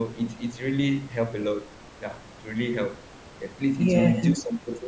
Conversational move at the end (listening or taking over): listening